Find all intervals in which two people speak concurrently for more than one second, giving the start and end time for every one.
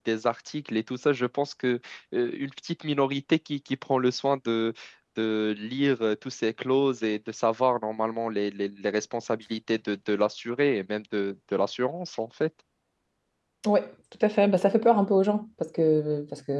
none

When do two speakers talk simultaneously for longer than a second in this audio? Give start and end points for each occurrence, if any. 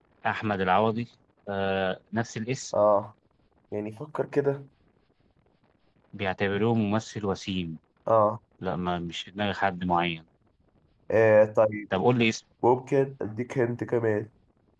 none

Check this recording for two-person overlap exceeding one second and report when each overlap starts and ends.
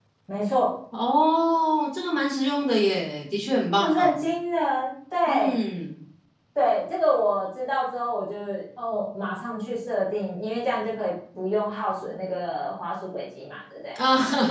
none

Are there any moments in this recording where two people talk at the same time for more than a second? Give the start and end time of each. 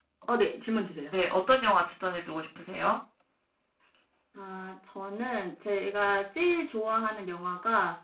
none

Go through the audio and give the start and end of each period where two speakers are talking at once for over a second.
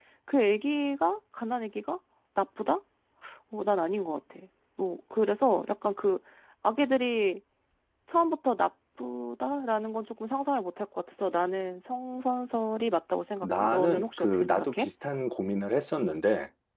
13.4-14.9

